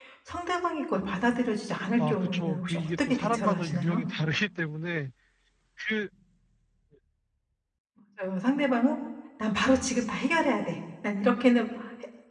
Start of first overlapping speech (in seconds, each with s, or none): 1.7 s